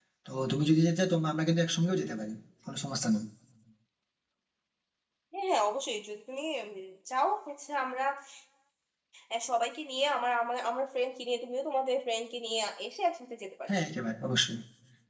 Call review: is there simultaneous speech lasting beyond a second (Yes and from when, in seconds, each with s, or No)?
No